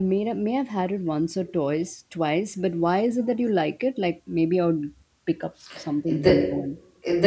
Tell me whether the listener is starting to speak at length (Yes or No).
Yes